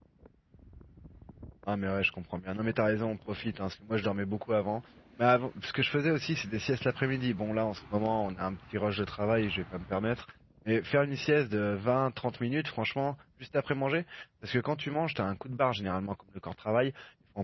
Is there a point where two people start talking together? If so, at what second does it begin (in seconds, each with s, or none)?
none